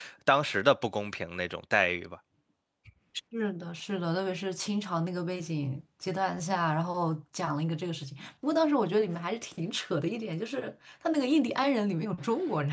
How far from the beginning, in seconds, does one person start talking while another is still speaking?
none

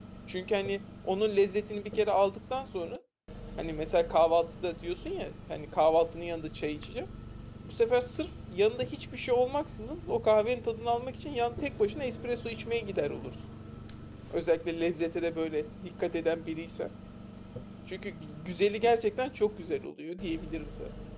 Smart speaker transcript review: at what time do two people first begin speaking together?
none

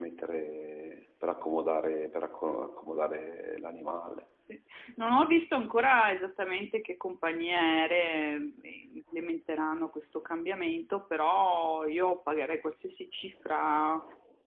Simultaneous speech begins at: none

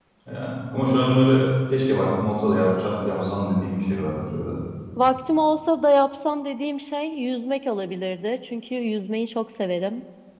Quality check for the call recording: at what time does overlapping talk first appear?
none

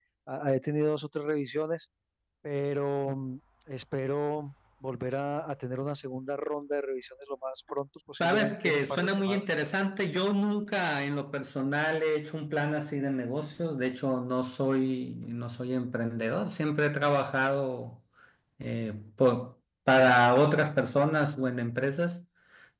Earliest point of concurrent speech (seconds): 8.2 s

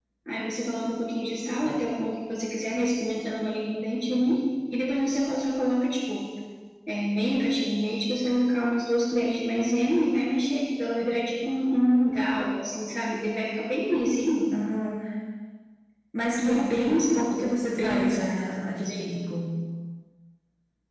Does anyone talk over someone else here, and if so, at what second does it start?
16.4 s

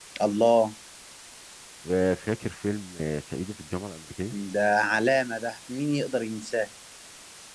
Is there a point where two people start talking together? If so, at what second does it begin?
none

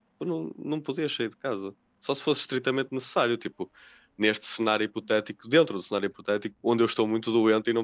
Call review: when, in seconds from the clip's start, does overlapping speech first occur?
none

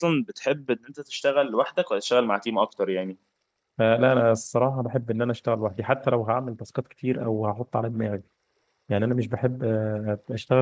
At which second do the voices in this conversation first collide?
none

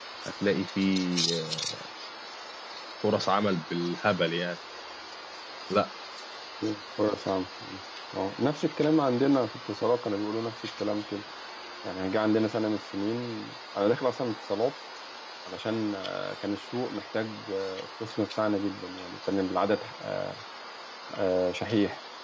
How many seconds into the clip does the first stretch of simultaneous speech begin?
none

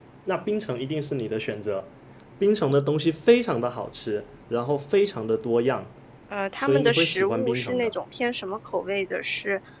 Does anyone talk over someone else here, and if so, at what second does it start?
6.6 s

